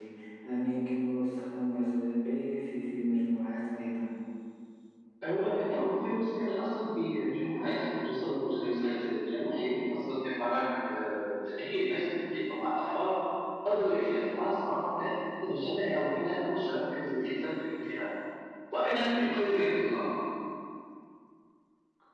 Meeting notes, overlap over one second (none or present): none